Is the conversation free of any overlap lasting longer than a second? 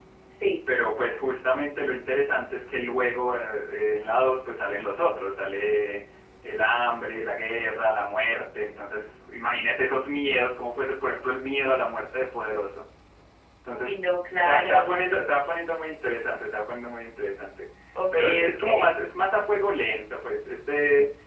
No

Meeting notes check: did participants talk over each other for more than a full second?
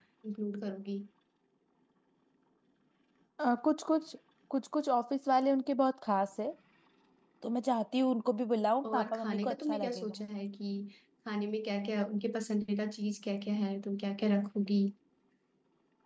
Yes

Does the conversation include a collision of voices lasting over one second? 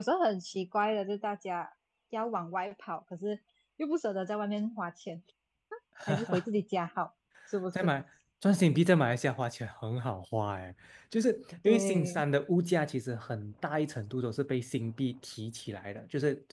No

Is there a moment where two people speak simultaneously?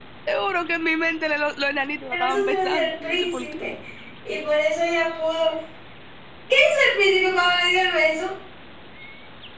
Yes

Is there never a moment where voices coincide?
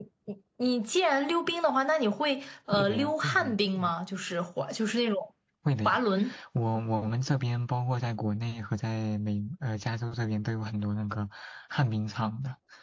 No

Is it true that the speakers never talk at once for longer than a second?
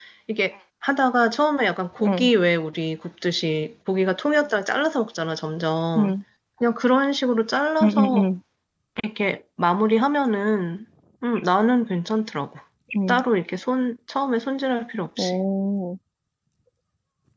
Yes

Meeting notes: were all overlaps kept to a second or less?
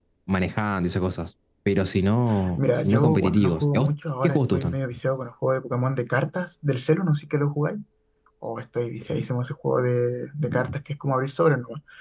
No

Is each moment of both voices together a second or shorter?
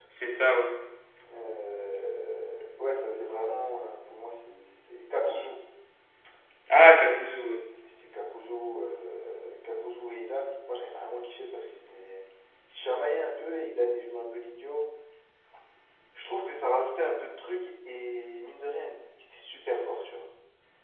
Yes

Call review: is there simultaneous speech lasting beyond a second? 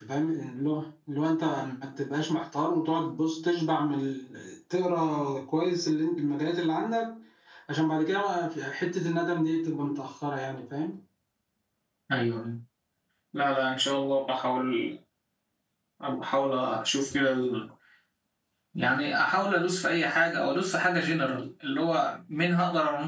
No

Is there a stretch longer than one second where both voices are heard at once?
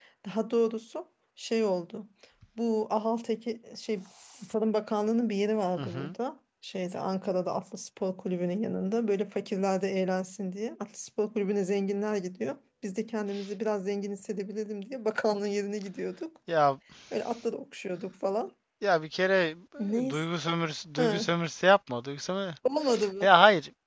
No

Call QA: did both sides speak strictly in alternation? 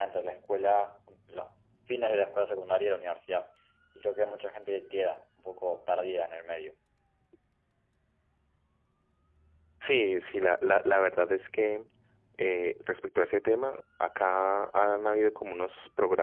Yes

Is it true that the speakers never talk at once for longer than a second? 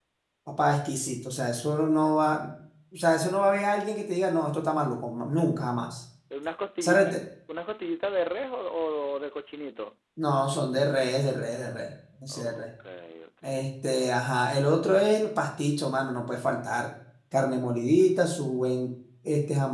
Yes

